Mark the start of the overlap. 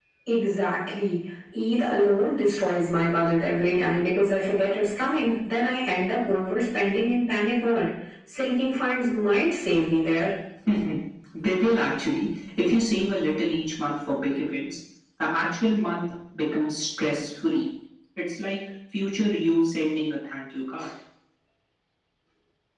none

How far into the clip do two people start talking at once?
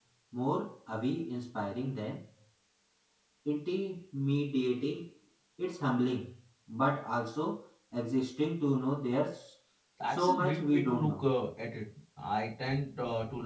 10.1 s

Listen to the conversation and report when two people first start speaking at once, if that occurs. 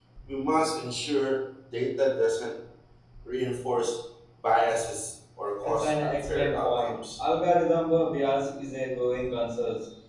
5.6 s

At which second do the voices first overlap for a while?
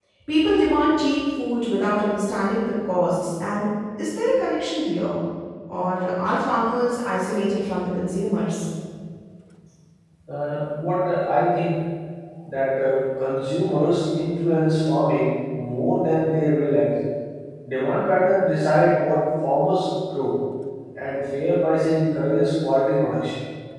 none

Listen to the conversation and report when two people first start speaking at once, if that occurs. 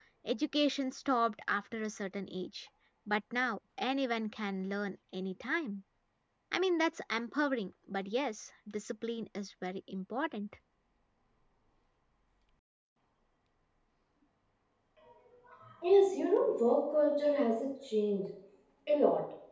none

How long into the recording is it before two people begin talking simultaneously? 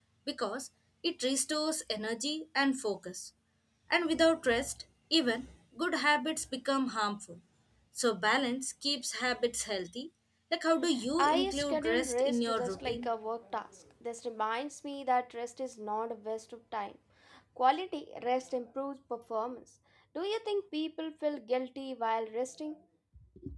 11.2 s

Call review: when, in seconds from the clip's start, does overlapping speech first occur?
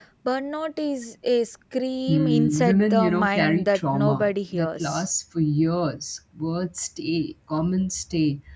2.1 s

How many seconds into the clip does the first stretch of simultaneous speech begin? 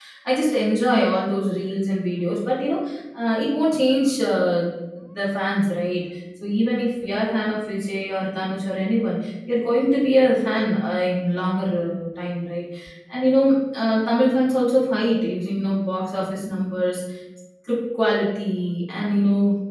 none

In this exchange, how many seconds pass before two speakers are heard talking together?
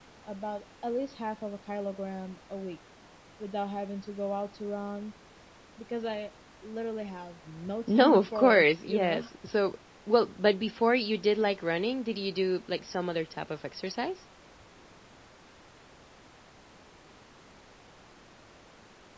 7.9 s

